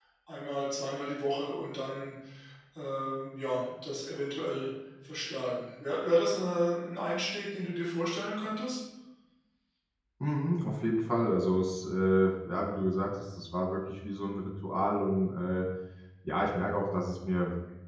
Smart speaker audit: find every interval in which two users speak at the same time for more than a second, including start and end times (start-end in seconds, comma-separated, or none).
none